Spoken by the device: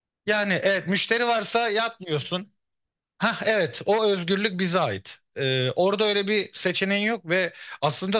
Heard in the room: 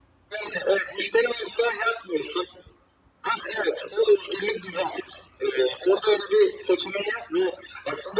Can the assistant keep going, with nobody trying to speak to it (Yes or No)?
Yes